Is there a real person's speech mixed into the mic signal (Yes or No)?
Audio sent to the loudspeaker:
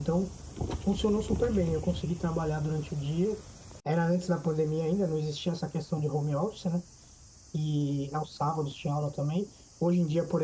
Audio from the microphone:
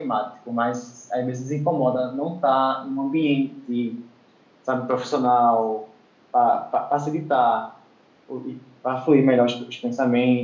Yes